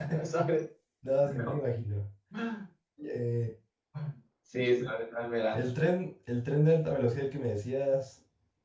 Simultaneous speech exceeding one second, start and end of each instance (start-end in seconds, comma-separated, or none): none